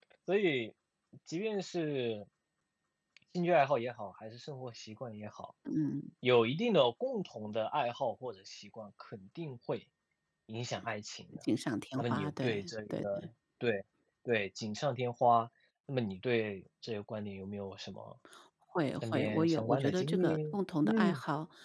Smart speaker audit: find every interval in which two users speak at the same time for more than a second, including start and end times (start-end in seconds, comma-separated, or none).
12.0-13.2, 19.1-20.3